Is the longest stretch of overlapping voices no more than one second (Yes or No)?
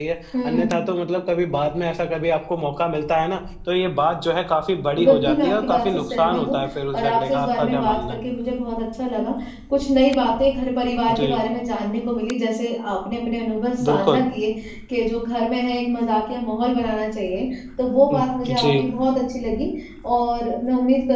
No